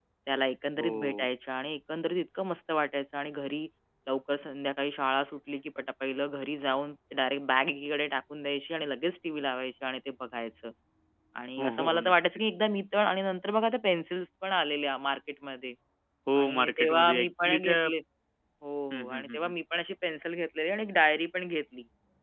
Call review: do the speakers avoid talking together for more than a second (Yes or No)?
No